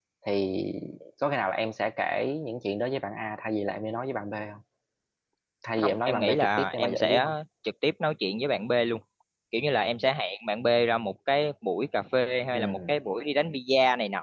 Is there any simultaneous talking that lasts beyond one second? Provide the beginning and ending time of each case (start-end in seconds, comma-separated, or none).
5.8-7.3